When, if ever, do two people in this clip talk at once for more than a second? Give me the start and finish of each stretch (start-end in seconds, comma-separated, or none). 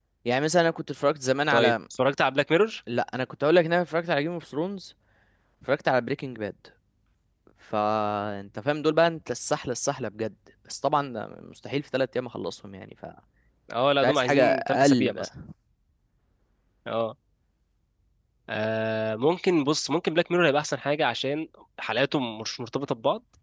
14.1-15.3